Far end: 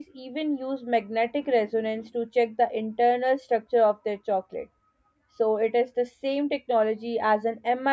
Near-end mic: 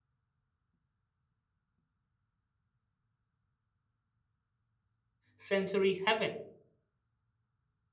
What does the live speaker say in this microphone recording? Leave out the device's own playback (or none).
sensory heaven